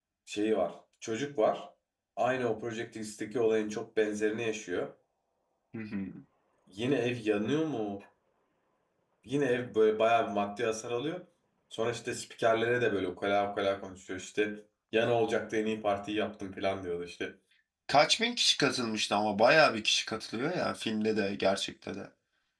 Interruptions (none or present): none